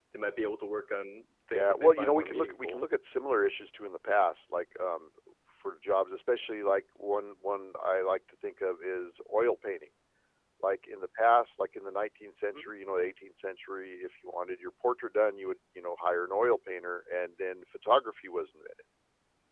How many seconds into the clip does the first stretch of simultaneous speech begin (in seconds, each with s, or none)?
1.5 s